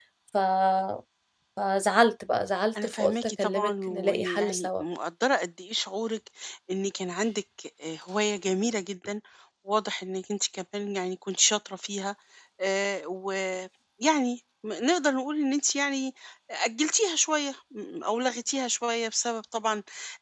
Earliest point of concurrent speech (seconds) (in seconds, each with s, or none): 2.8 s